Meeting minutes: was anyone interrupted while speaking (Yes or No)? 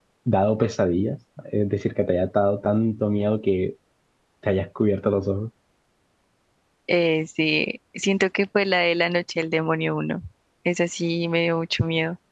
No